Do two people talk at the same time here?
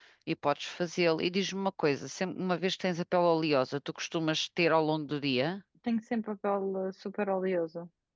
No

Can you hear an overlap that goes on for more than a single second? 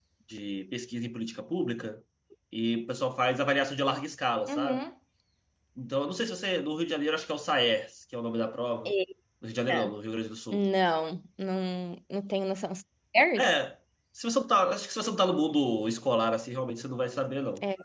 No

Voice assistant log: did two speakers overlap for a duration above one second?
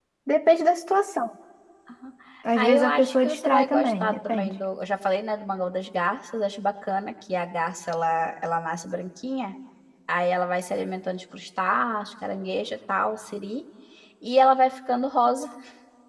Yes, from 2.5 s

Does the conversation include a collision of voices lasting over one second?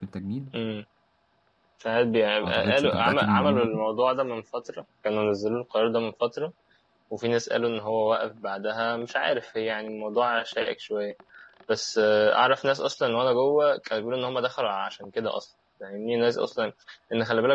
Yes, from 2.4 s

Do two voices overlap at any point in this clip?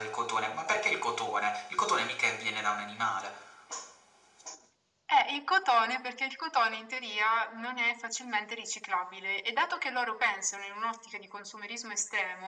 No

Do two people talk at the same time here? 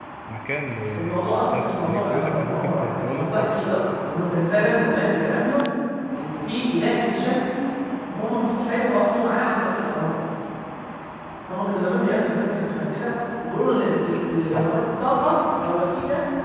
Yes, from 1.0 s

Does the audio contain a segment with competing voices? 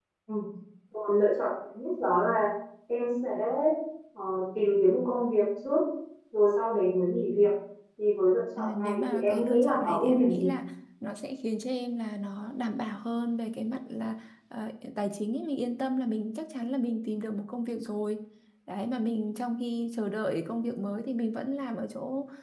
Yes, from 8.6 s

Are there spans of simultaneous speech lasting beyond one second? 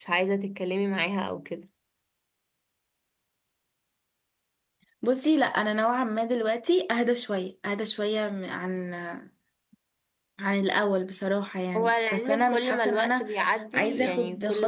Yes, from 11.8 s

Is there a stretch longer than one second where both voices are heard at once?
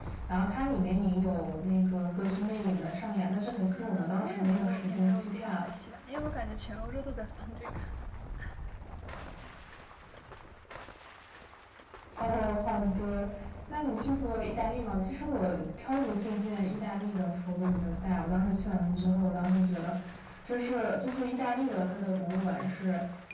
Yes, from 3.7 s

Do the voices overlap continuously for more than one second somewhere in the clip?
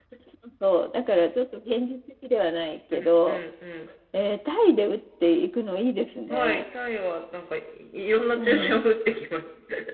No

